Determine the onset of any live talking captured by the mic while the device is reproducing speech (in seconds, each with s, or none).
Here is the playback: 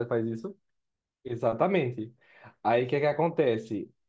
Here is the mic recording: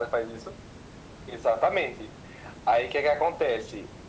none